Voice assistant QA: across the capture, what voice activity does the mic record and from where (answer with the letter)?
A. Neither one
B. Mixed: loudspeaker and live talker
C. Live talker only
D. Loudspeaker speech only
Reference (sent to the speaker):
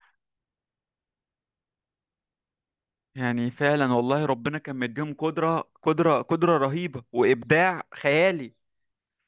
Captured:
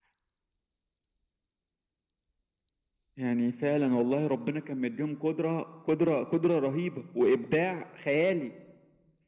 D